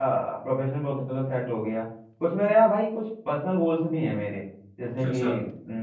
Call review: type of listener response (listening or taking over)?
listening